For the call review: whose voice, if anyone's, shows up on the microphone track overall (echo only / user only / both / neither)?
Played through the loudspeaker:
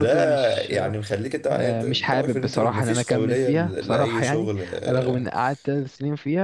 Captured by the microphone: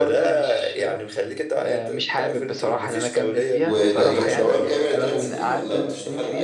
both